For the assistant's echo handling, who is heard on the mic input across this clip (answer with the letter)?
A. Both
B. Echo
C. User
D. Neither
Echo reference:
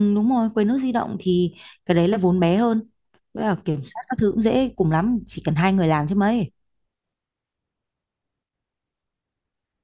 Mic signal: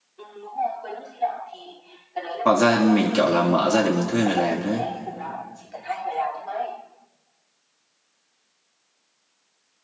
A